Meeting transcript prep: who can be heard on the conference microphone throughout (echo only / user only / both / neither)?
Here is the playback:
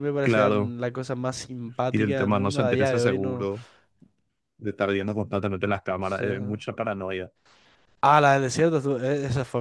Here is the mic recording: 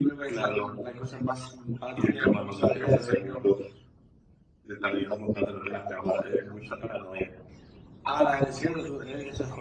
echo only